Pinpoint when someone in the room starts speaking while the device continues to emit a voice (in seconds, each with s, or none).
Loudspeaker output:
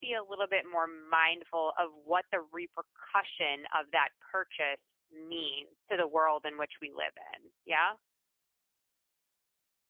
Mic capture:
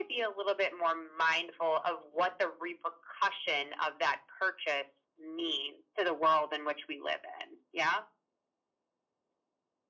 none